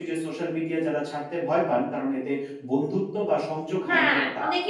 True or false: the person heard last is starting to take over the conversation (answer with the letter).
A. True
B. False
A